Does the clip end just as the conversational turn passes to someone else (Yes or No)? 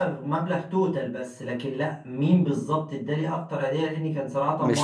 No